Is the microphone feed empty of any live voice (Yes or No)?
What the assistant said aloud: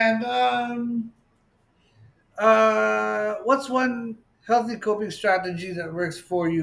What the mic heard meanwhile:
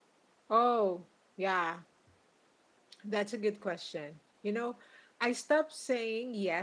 No